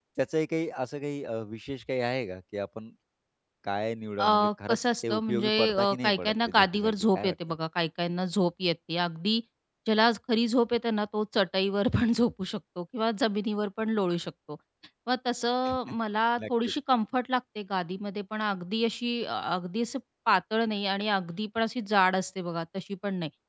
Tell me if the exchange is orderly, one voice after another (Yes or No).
No